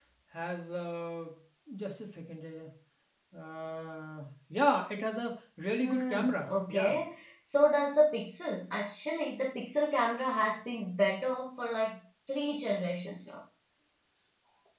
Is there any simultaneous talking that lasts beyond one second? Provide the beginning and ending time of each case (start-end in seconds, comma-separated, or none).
5.8-7.0